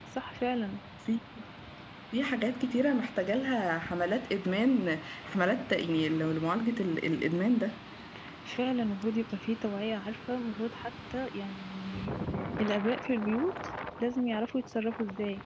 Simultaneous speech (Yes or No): No